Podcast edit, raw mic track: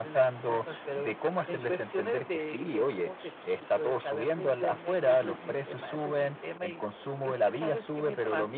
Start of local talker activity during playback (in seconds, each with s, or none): none